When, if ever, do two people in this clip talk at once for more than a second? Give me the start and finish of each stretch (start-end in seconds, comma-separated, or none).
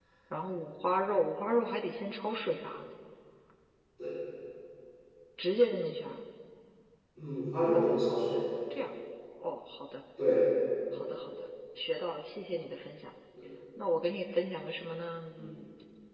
none